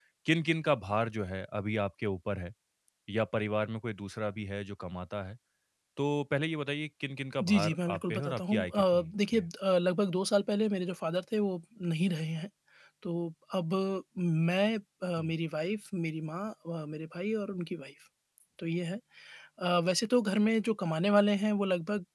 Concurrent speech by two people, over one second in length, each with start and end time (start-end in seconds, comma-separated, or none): 7.4-9.4